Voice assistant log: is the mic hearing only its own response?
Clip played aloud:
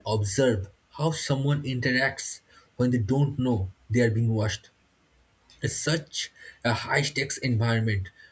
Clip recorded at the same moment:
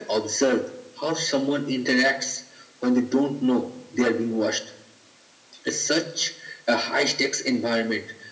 Yes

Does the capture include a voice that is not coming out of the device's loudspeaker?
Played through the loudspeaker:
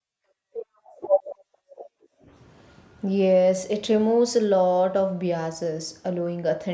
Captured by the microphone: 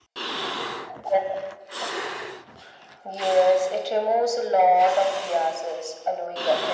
No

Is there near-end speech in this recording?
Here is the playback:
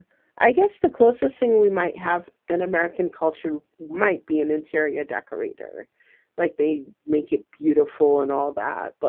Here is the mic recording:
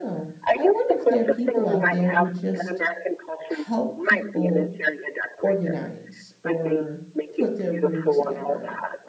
Yes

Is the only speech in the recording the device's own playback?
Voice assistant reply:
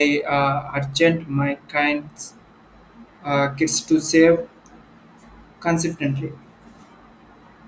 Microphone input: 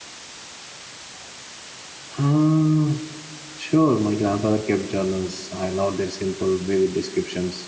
No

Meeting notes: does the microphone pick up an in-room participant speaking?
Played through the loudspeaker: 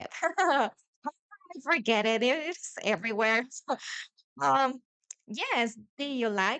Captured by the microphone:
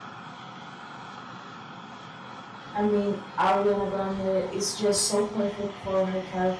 Yes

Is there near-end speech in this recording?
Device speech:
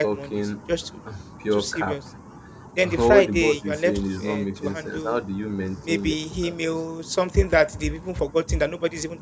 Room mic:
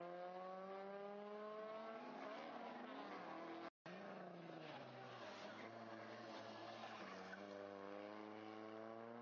No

